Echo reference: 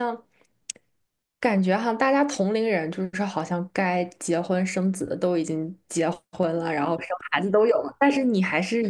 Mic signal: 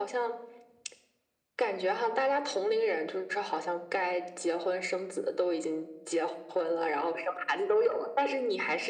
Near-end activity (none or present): none